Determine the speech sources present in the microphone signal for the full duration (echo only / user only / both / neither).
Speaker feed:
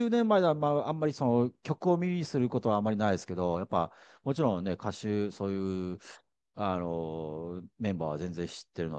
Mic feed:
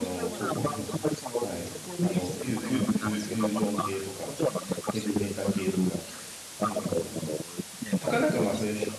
both